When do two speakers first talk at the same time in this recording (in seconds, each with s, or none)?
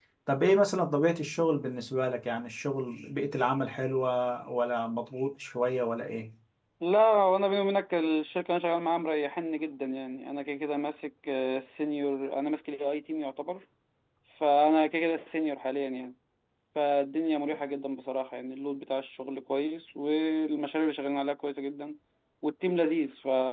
none